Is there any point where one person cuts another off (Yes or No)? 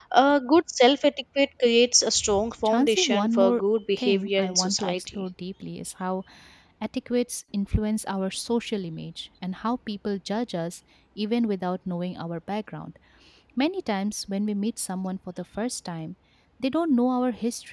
Yes